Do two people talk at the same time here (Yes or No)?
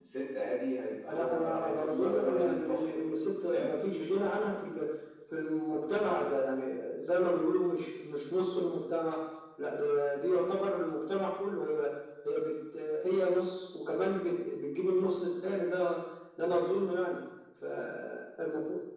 Yes